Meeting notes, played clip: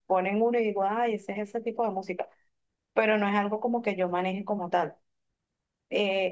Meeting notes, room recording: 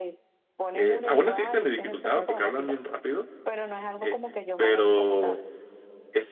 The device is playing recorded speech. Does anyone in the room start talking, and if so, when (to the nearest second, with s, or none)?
1 s